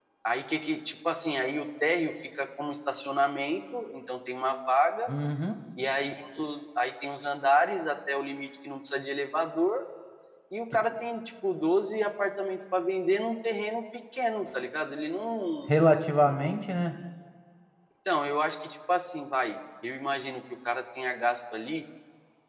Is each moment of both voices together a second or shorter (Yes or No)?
Yes